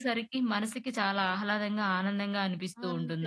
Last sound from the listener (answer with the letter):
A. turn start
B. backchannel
A